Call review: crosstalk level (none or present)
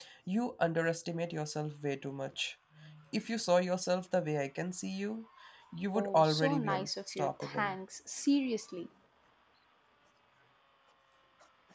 present